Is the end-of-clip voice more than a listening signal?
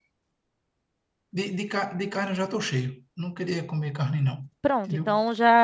Yes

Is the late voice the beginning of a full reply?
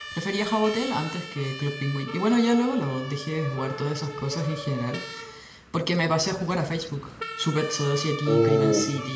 No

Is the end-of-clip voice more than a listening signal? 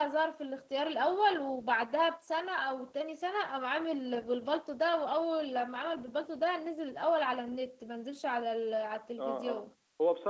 Yes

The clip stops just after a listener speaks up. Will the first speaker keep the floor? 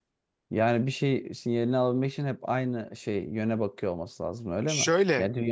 No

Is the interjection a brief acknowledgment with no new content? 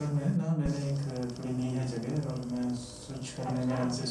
Yes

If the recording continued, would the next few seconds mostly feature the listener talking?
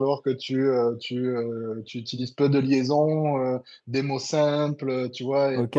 Yes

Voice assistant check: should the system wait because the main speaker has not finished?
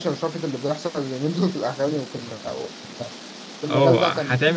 No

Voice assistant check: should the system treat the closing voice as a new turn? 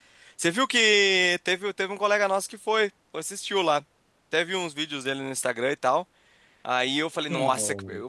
No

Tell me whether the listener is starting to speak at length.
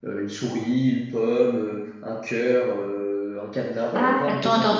Yes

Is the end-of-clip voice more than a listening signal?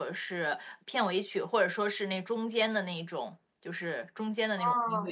Yes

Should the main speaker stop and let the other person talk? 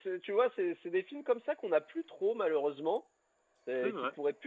No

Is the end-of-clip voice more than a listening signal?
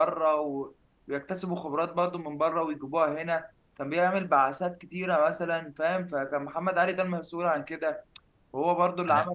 No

